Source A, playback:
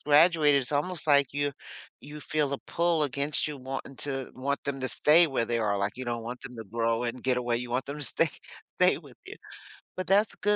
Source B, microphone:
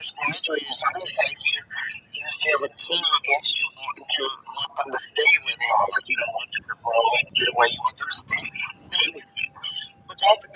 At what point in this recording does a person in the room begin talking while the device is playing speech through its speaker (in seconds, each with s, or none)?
none